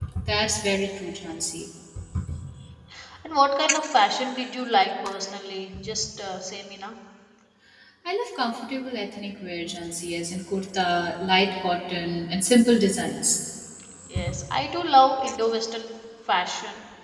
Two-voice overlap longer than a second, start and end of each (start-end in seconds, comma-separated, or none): none